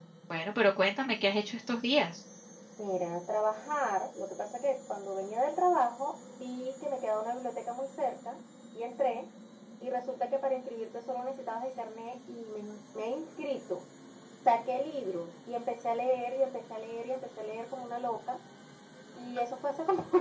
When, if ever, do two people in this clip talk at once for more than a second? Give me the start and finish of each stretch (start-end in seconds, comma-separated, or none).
none